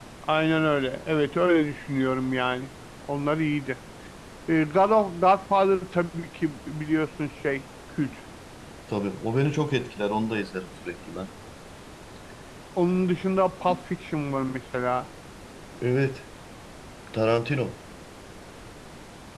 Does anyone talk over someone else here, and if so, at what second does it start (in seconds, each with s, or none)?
none